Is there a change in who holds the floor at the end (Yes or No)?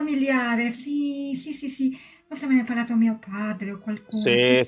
Yes